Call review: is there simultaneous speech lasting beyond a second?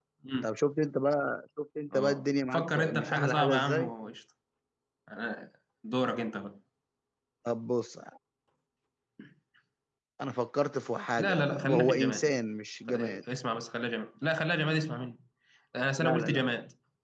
Yes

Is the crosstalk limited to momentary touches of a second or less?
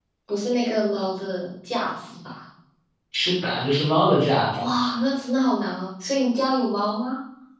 Yes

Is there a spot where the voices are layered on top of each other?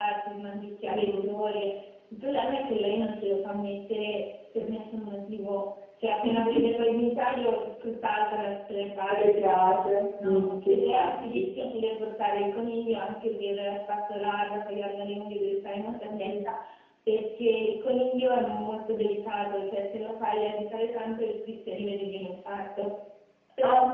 Yes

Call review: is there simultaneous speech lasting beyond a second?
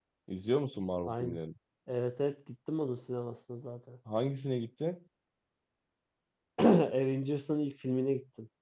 No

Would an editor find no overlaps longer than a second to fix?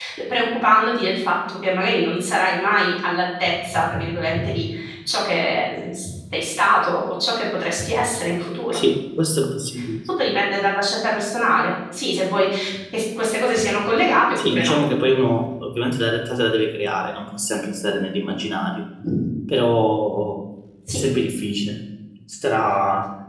Yes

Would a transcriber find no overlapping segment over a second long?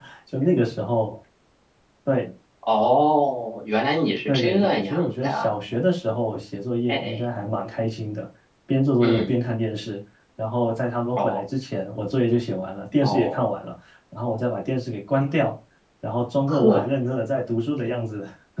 No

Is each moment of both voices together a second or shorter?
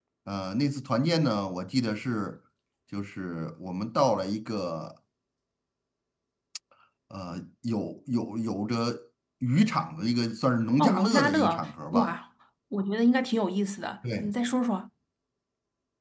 No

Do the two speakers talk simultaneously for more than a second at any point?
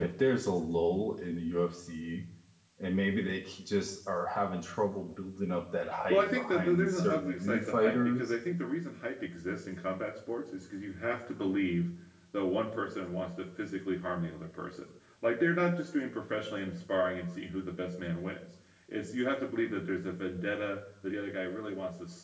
Yes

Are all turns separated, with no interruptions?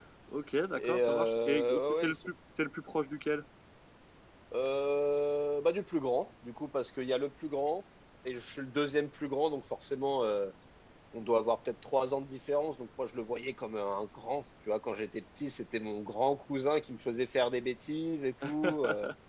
No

